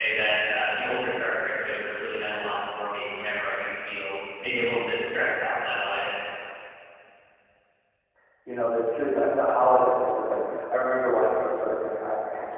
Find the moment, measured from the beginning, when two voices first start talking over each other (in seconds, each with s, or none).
none